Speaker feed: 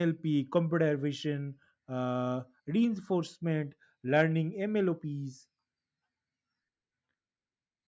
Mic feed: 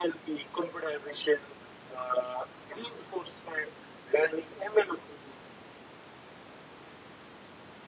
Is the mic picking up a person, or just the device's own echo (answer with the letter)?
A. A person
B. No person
B